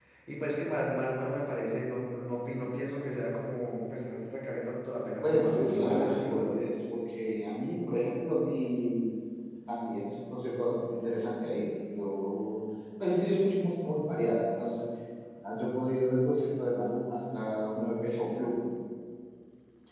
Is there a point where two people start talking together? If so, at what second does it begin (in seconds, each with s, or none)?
5.2 s